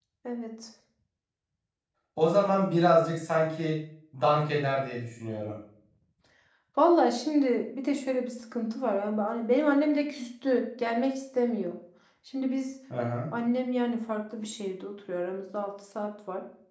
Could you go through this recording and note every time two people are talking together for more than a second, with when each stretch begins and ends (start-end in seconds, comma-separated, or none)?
none